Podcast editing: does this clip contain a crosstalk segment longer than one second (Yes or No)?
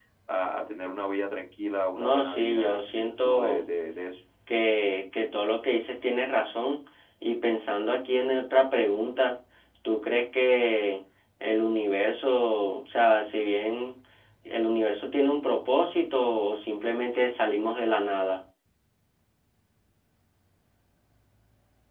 Yes